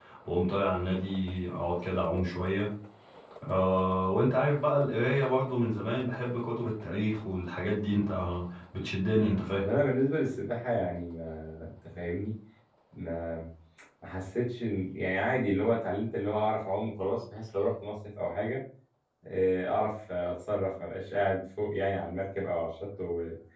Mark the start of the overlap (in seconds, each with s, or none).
none